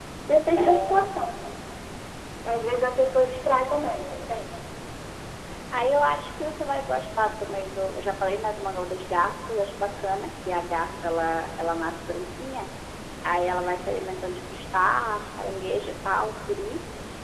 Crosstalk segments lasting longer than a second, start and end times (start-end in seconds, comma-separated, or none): none